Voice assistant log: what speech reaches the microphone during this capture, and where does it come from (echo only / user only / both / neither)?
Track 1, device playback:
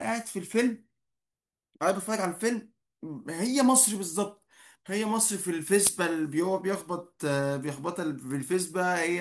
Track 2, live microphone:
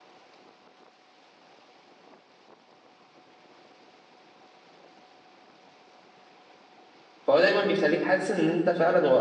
user only